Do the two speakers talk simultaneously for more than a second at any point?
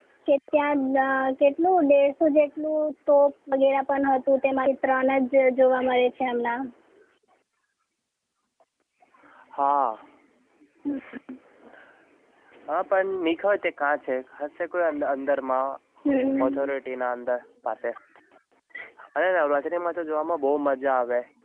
No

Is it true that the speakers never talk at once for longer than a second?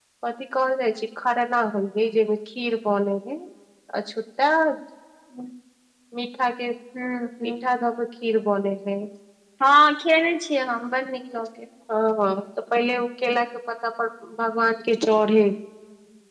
Yes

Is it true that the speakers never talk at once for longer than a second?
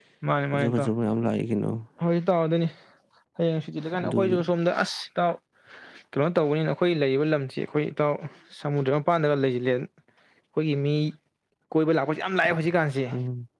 Yes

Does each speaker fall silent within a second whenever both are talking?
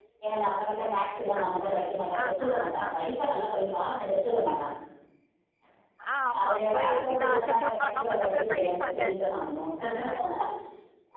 No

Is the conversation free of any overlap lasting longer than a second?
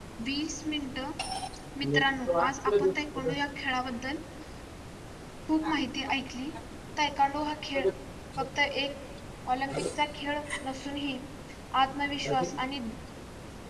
No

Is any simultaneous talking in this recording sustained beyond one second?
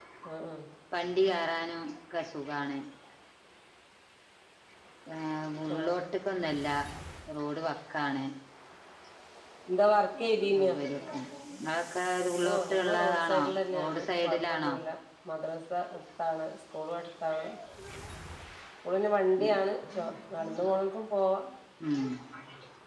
Yes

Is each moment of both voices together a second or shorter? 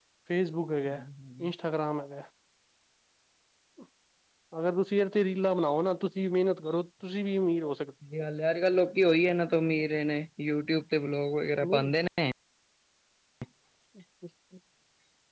Yes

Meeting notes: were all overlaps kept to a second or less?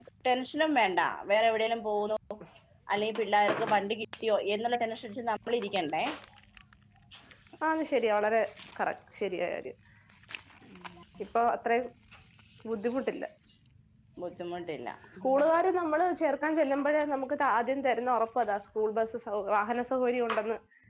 Yes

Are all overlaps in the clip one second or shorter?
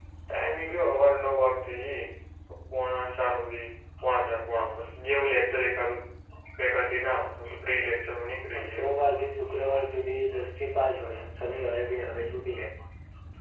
Yes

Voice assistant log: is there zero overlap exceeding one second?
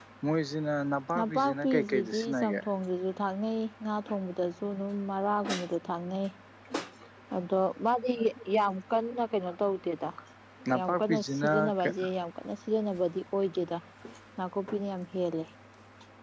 No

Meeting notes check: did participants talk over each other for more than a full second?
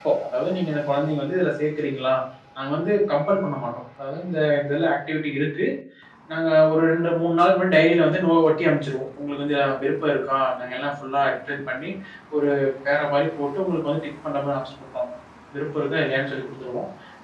No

